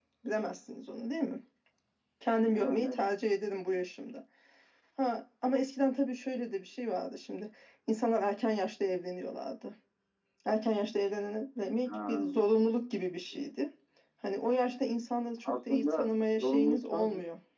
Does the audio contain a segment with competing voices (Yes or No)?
Yes